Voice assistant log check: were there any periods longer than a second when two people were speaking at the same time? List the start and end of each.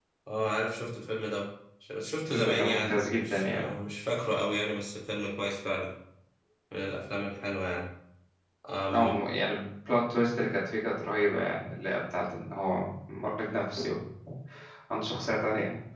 2.2-3.7

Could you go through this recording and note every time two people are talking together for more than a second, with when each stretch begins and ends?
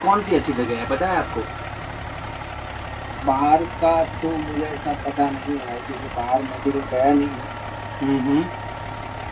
none

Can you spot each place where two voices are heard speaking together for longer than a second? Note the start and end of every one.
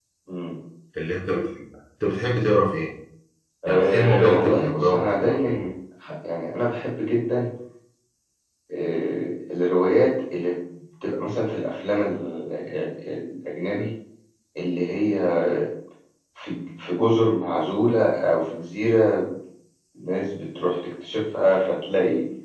3.7-5.6

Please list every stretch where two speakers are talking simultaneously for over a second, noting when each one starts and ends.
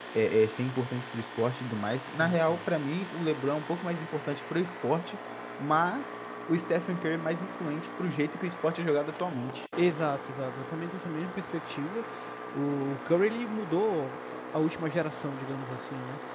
none

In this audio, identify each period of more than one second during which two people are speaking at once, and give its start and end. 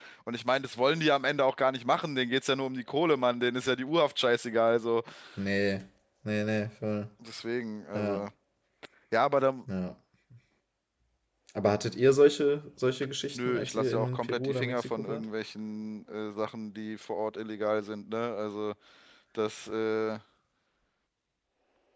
13.3-15.2

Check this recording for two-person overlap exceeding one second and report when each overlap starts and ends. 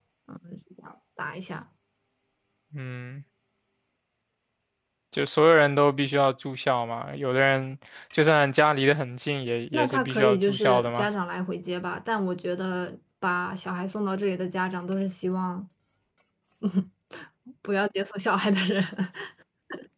9.7-11.1

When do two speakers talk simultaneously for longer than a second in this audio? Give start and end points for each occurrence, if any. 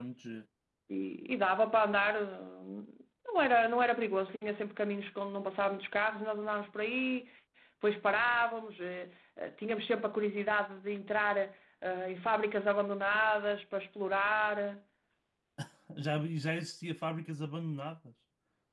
none

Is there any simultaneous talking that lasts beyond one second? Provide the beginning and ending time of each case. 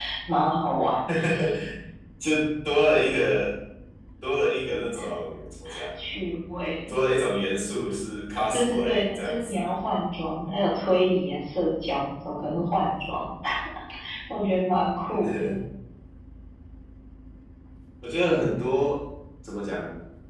8.5-9.7

